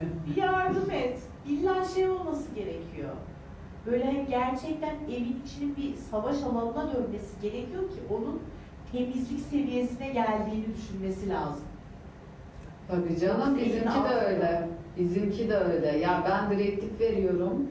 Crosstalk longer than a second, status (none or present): present